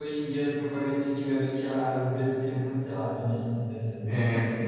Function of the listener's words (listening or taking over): taking over